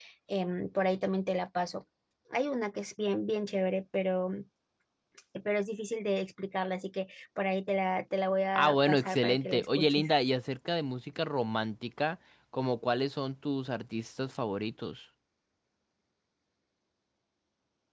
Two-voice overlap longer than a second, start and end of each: 8.6-10.1

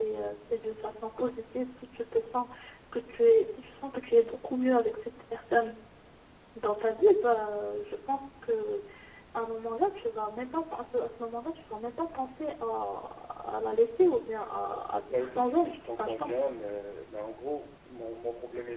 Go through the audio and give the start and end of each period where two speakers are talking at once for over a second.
15.1-16.4

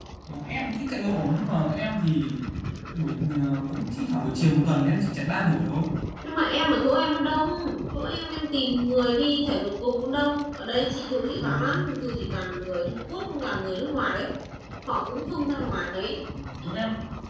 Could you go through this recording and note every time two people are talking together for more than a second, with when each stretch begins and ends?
none

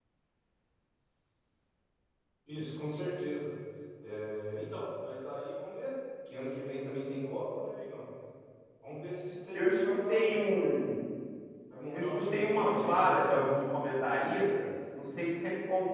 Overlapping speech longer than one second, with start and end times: 9.5-10.9, 11.9-13.5

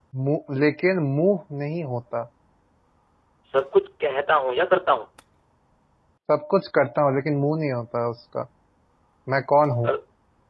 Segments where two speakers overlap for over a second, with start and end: none

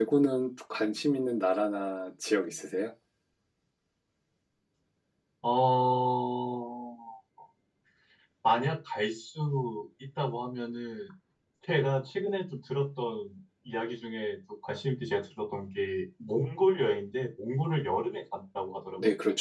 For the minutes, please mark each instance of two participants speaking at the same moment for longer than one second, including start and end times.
none

